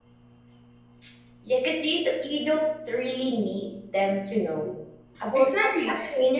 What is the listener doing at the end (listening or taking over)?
taking over